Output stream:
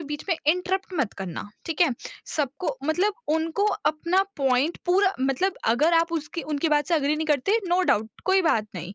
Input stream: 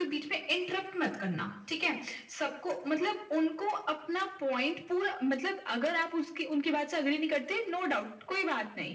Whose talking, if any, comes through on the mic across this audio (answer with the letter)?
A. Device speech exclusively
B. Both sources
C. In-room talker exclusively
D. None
A